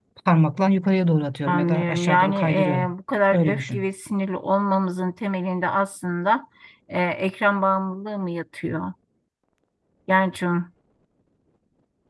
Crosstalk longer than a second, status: present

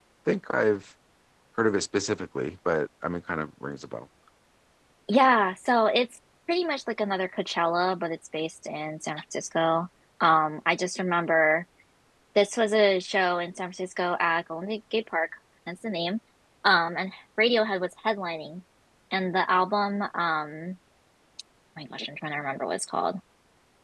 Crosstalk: none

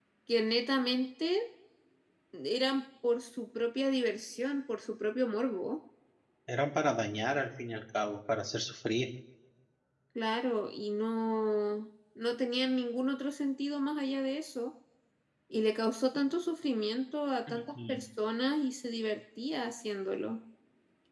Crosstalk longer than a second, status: none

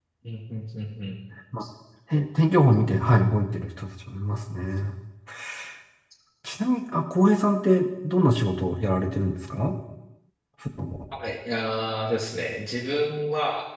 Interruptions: none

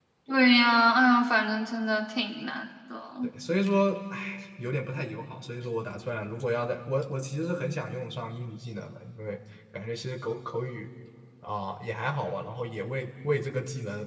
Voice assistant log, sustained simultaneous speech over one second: none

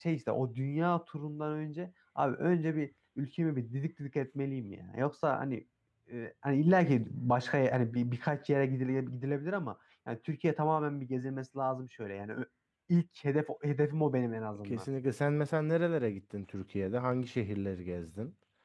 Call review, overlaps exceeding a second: none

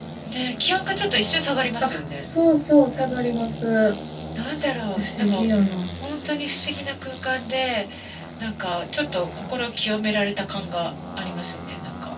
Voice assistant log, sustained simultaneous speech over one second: none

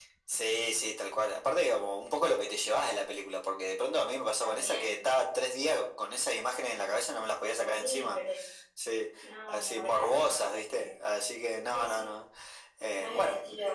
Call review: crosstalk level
present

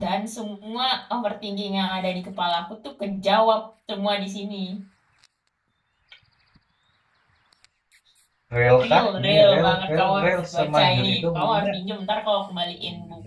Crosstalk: present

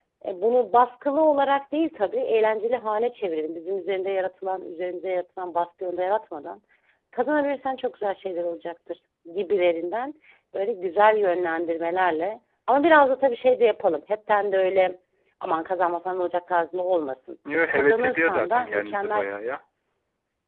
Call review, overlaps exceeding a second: present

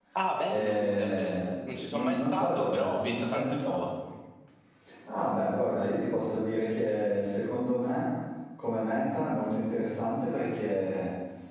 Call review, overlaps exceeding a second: present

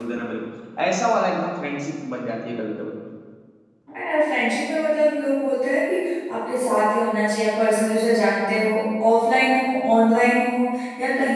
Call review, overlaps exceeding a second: none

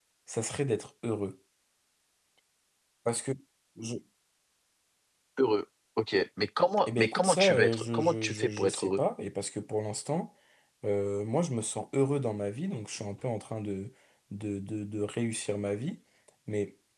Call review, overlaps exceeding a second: present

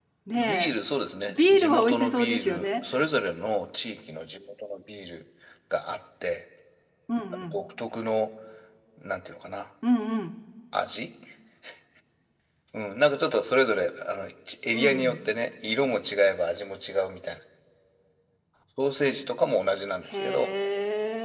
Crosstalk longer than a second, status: present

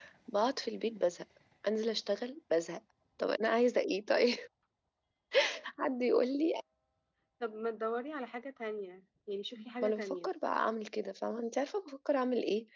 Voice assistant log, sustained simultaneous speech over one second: none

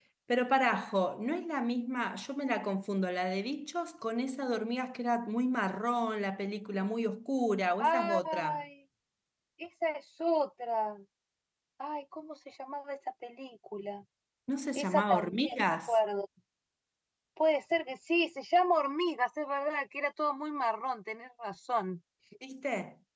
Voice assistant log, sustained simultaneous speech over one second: present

